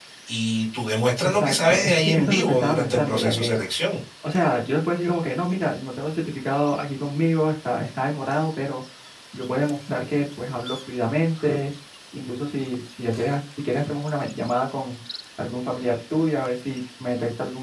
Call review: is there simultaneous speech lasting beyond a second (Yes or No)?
Yes